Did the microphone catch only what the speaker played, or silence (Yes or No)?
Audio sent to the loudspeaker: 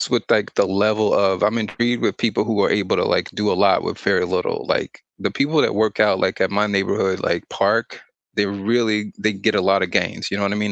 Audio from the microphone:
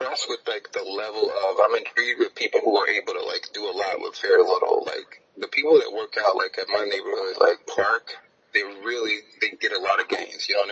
Yes